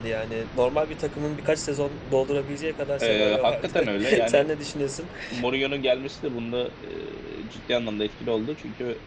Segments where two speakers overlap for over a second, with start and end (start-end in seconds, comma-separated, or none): 3.0-4.4